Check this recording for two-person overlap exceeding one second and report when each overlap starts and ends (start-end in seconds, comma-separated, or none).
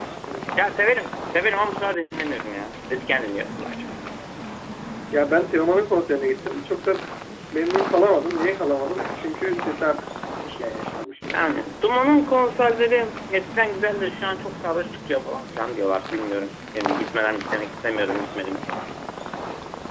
none